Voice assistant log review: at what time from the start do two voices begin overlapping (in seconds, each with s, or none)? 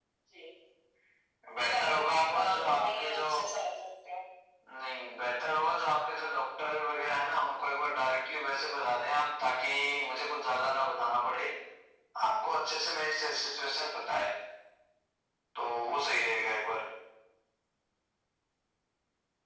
1.6 s